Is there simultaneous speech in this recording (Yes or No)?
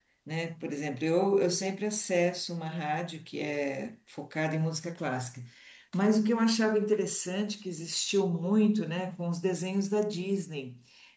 No